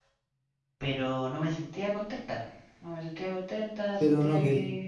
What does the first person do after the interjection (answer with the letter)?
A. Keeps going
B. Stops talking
B